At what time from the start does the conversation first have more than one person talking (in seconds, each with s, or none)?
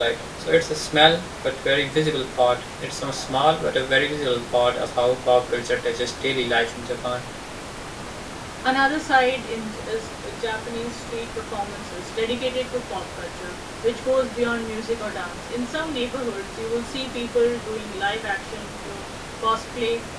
none